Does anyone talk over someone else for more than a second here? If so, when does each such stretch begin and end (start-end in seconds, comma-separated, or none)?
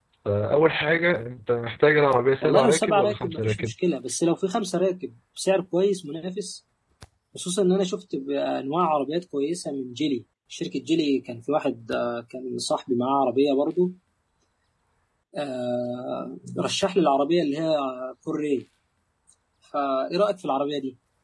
2.4-3.7